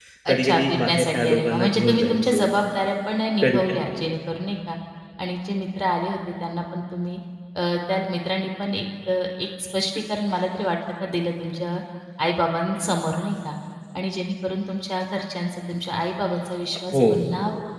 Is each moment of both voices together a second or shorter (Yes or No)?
No